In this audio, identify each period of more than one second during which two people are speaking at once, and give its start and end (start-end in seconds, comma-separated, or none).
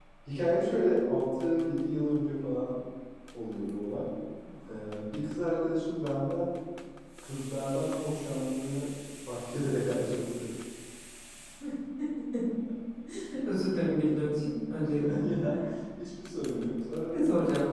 none